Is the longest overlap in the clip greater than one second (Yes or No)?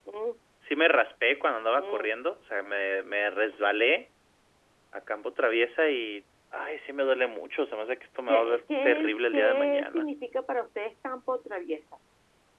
Yes